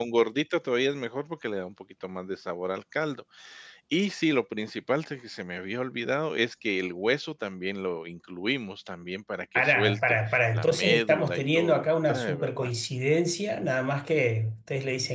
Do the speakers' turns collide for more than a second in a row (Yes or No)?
Yes